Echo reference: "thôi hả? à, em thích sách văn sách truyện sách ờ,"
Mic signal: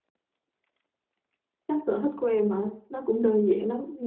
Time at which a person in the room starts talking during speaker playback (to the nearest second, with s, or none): 2 s